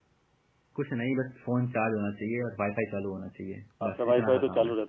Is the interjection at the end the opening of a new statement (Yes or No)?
Yes